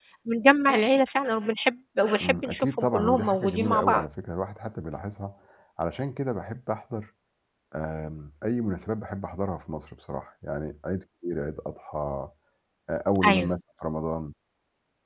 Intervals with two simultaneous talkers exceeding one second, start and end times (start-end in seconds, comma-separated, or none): 2.2-4.0